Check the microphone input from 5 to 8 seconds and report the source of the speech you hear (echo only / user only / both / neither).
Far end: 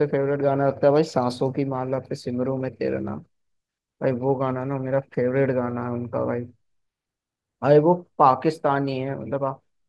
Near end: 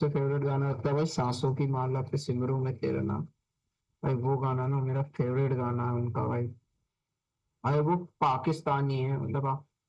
echo only